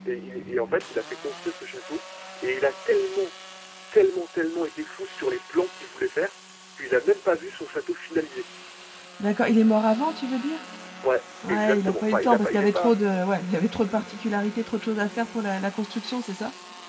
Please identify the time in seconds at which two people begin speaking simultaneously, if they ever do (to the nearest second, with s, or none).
11 s